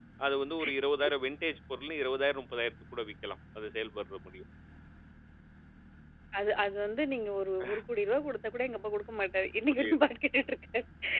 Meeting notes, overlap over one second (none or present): none